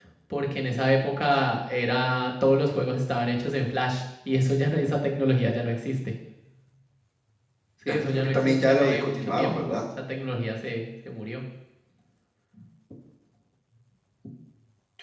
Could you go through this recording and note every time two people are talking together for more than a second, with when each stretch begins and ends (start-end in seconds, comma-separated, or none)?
7.9-9.7